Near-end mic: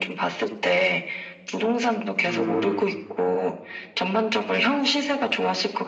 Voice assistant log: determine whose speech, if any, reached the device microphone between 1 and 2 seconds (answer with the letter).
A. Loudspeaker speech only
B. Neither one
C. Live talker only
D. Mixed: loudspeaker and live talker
A